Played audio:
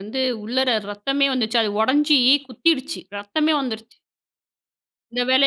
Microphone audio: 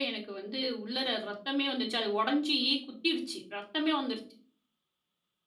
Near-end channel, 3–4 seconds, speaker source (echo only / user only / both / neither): echo only